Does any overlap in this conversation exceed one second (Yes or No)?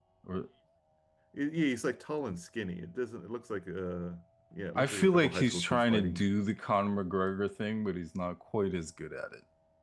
Yes